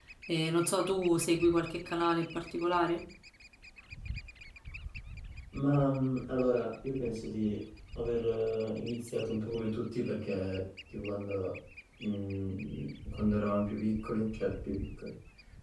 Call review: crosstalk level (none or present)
none